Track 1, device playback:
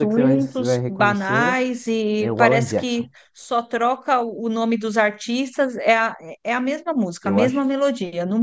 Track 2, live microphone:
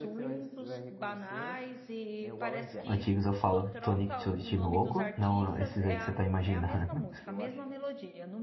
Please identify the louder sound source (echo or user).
user